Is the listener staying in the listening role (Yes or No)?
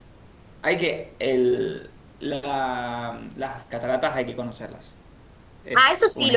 No